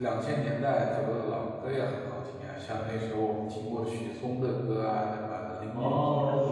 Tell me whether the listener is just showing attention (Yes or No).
No